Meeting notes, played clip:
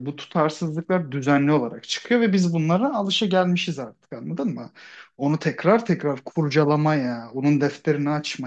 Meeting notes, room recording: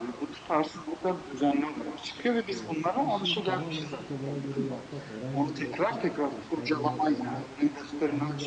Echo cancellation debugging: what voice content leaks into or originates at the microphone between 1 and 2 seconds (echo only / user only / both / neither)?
echo only